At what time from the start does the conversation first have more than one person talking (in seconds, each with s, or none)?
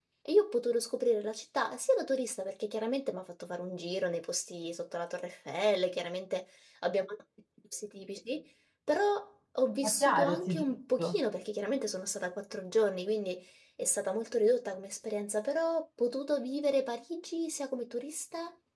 9.8 s